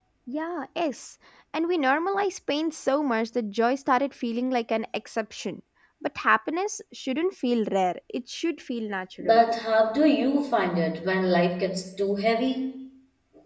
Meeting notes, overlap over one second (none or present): none